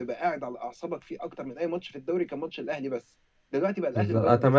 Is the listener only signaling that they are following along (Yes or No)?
No